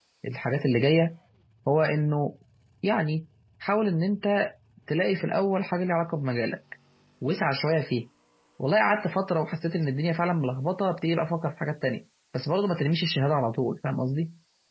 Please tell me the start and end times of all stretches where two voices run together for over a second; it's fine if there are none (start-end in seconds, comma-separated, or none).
none